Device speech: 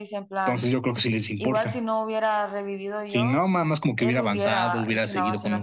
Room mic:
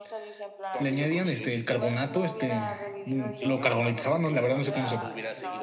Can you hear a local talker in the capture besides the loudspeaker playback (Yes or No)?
Yes